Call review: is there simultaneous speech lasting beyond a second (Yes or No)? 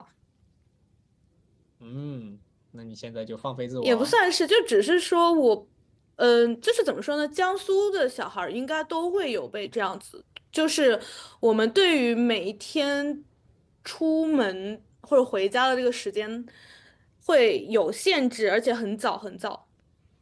No